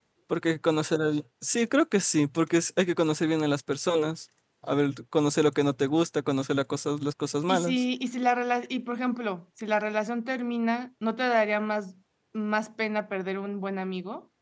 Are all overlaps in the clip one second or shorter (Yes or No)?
Yes